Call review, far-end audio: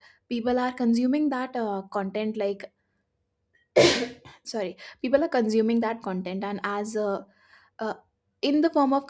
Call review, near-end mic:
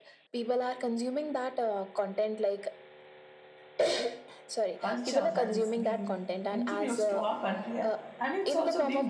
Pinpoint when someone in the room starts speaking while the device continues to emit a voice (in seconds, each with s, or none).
4.8 s